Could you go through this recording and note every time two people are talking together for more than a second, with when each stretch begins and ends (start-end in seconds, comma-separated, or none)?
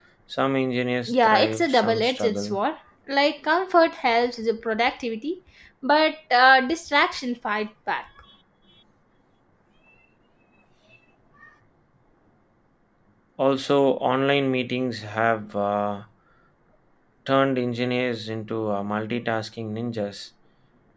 1.1-2.6